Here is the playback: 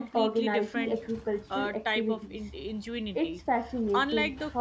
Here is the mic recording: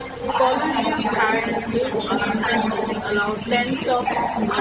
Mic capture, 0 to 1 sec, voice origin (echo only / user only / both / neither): both